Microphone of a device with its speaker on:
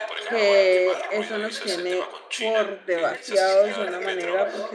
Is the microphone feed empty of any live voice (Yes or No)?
No